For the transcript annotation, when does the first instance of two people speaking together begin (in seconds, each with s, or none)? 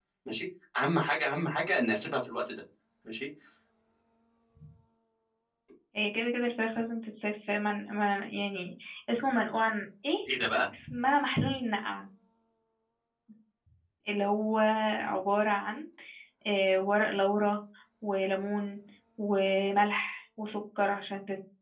none